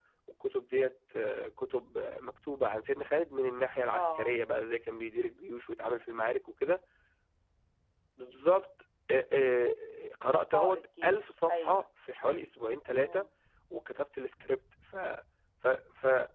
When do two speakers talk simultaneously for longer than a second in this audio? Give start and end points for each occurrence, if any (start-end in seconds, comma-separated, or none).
10.3-11.8